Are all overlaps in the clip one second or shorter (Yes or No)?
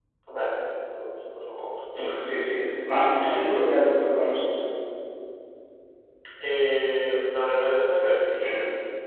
Yes